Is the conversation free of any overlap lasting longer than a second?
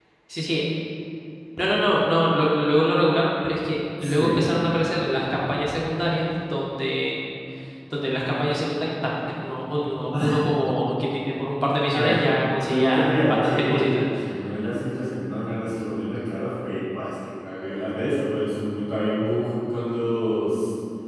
No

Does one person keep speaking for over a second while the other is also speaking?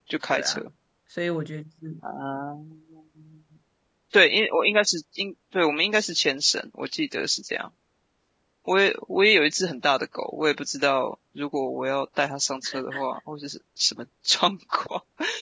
No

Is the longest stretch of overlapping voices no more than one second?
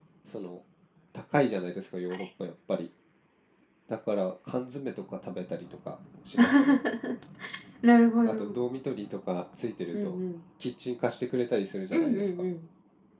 Yes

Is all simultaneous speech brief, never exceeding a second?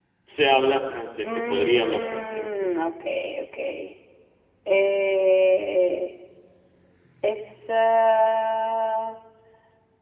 No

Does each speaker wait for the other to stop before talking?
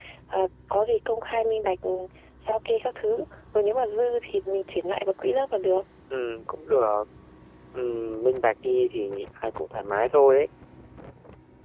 Yes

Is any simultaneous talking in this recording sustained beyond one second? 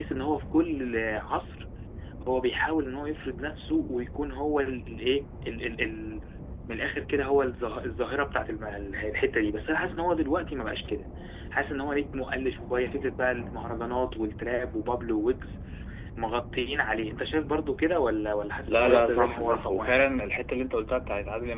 Yes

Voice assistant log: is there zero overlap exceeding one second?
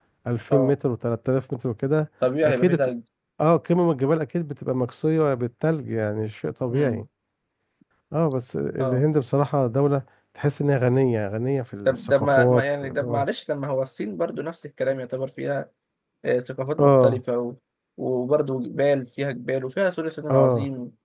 No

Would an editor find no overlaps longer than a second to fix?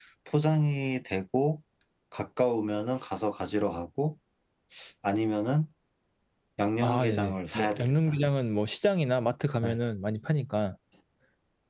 No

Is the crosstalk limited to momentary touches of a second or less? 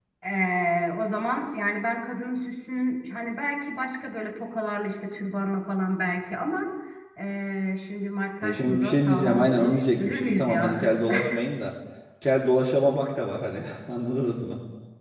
No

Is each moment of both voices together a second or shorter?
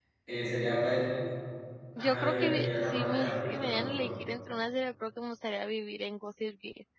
No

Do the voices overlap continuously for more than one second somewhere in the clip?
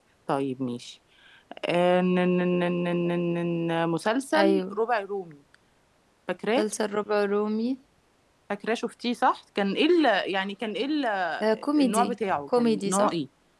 Yes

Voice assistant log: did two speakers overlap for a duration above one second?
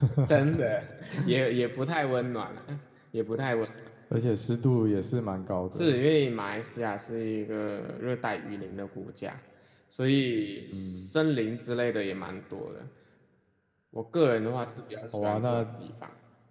No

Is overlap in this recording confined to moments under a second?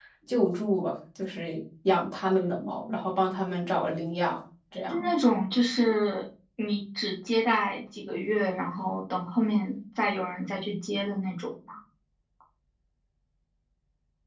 Yes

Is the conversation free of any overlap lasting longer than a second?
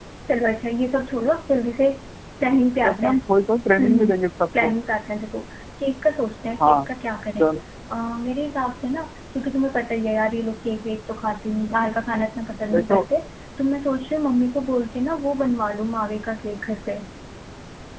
Yes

